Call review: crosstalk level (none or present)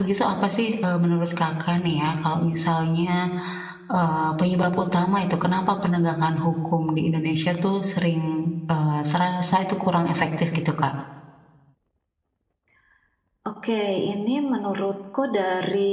none